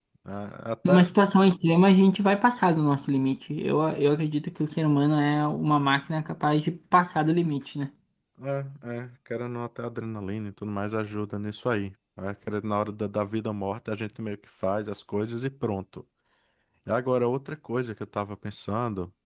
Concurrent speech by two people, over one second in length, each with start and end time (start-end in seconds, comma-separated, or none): none